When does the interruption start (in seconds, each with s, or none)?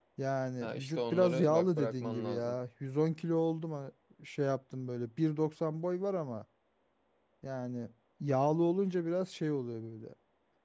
0.6 s